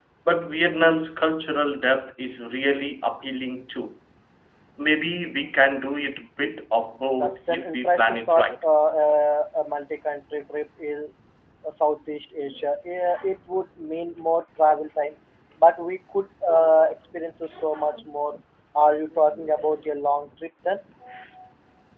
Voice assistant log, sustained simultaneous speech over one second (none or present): present